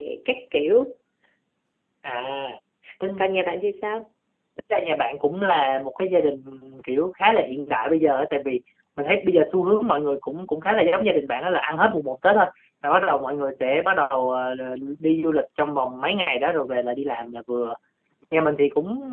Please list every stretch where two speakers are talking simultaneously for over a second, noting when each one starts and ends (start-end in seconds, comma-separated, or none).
none